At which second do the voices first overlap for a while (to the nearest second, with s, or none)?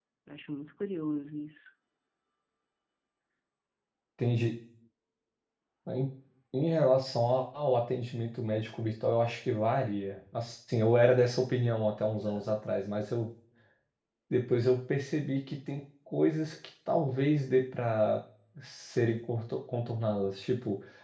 none